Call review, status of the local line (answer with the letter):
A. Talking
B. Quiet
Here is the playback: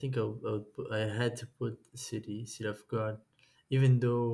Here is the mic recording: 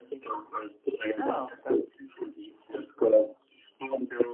A